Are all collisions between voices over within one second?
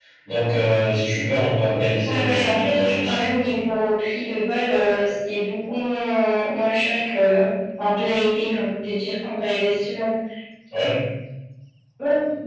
No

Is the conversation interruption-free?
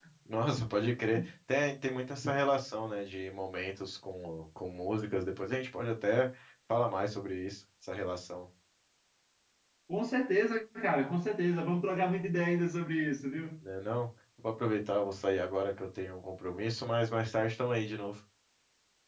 Yes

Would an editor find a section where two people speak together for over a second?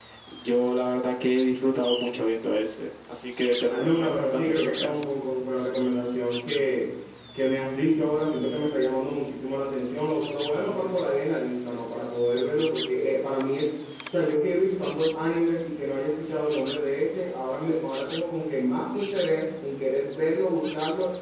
Yes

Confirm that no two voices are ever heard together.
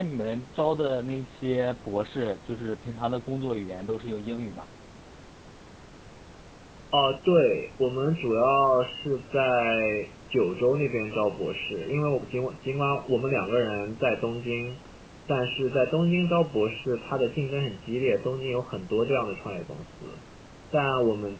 Yes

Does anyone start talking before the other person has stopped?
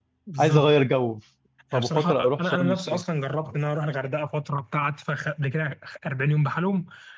Yes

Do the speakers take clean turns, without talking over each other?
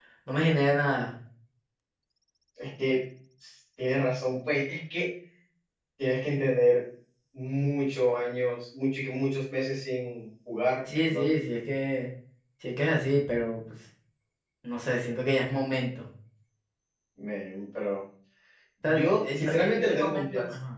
No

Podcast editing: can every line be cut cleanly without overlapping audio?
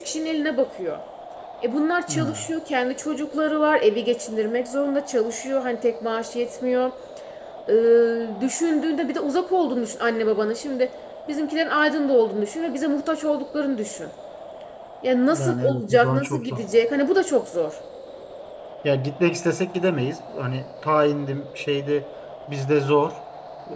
No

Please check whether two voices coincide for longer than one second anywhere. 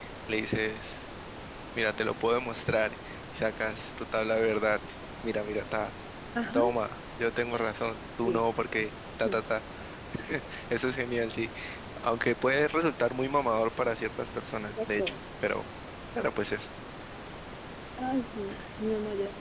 No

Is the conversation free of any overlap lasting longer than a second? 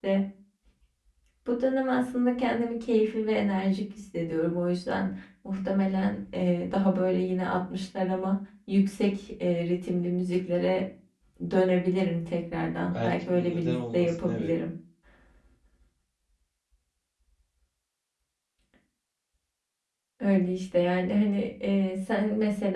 No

